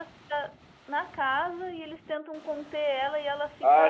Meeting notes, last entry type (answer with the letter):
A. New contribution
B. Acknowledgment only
A